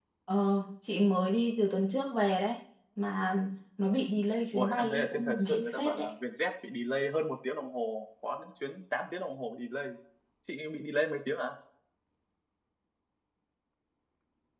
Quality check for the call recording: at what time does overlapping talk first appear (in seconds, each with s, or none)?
4.5 s